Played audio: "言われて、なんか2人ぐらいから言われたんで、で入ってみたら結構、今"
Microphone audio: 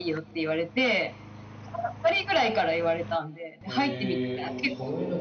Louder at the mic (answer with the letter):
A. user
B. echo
B